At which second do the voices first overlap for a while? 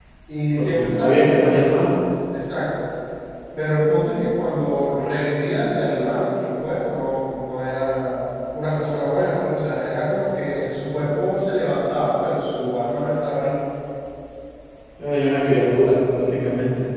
0.6 s

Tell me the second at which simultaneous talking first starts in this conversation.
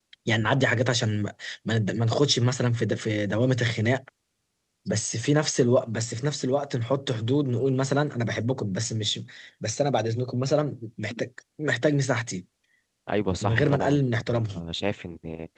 13.4 s

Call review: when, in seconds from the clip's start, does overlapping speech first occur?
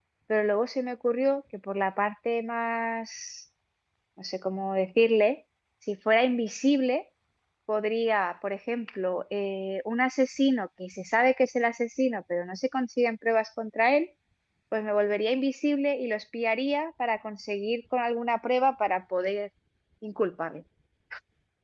none

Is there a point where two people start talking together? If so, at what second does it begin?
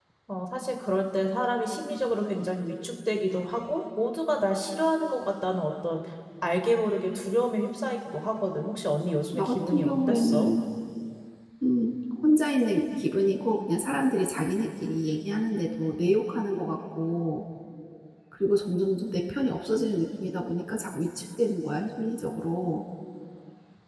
9.3 s

